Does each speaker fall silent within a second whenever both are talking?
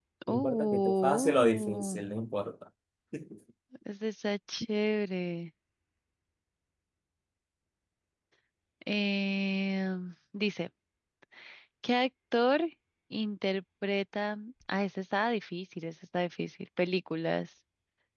No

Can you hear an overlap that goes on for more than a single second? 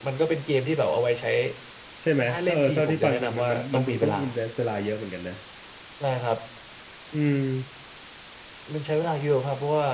Yes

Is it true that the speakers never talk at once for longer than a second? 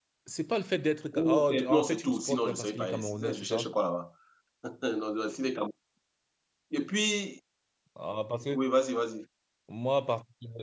No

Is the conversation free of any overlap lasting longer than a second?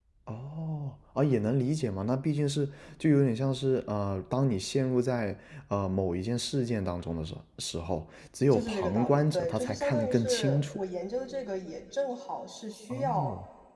No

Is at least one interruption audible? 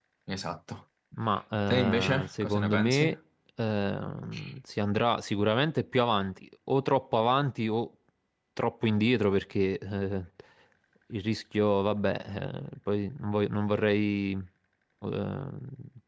Yes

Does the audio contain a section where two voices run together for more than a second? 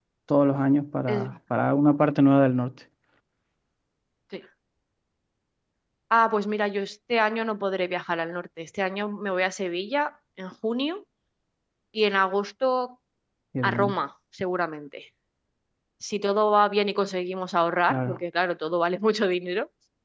No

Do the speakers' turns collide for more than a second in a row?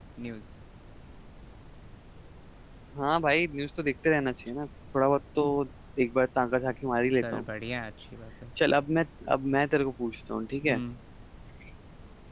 No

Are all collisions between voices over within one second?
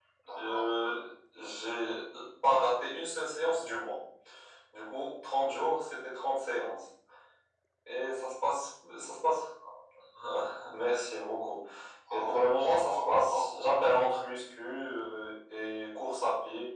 No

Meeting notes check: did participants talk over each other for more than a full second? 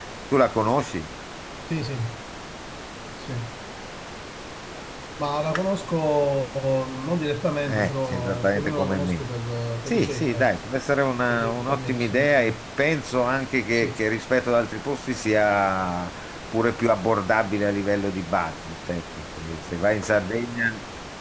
Yes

